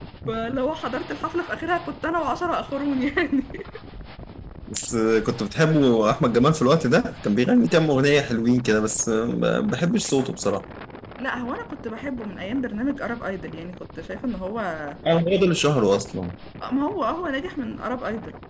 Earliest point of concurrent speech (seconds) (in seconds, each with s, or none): none